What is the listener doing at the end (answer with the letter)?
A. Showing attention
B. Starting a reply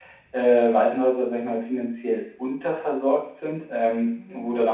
A